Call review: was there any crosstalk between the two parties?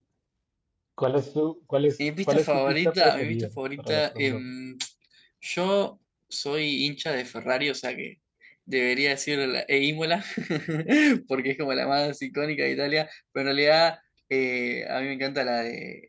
Yes, from 2.3 s

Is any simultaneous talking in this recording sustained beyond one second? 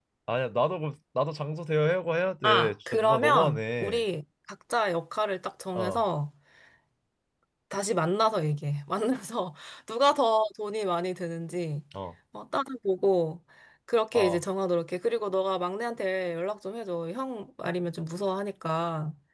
Yes, from 2.4 s

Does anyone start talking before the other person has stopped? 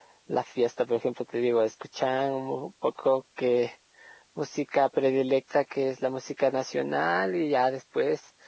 No

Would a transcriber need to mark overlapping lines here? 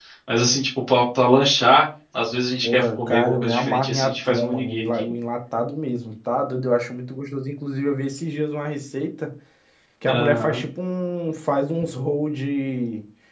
Yes, from 2.6 s

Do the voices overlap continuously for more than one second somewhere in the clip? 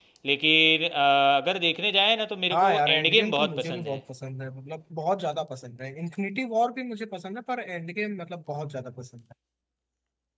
Yes, from 2.5 s

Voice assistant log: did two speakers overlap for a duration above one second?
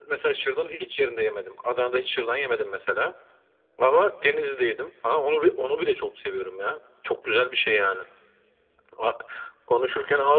No

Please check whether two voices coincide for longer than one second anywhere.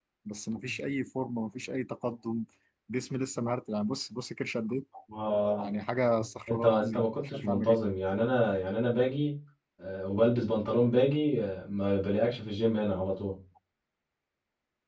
Yes, from 6.5 s

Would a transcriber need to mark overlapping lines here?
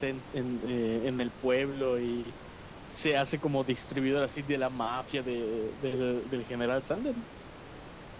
No

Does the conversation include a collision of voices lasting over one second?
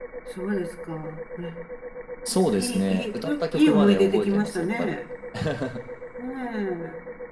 Yes, from 2.6 s

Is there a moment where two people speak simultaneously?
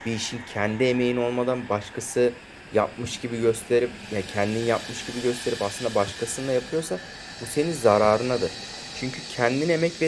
No

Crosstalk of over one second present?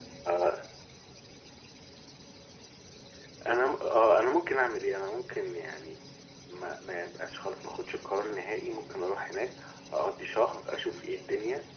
No

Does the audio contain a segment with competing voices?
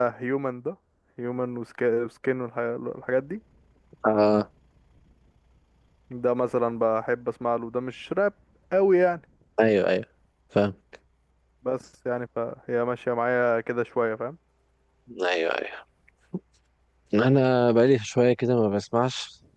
No

